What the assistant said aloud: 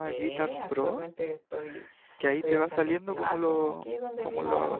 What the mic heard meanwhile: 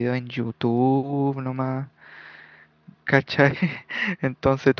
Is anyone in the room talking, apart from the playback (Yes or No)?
Yes